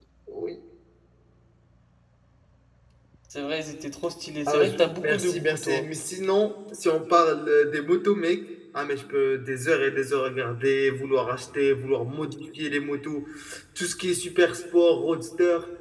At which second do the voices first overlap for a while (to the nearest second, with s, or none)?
4 s